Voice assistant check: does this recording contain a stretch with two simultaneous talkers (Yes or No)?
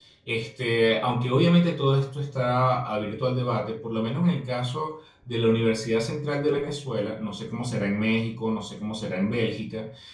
No